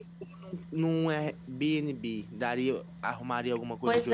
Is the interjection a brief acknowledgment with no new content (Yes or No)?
No